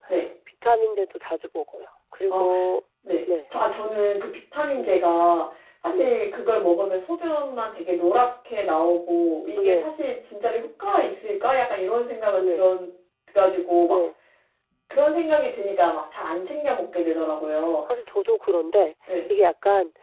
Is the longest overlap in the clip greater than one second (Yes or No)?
No